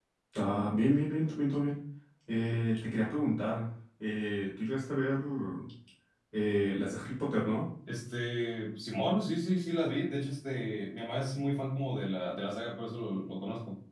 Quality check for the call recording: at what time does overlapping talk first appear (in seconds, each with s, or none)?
none